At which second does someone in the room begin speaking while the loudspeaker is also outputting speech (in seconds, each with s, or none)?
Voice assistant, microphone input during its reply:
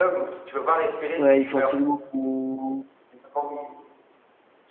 1.2 s